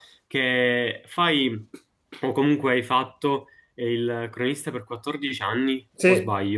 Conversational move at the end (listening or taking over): taking over